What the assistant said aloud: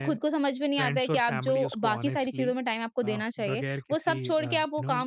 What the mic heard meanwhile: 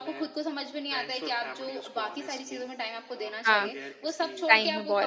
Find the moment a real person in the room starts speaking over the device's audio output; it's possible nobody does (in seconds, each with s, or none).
3.5 s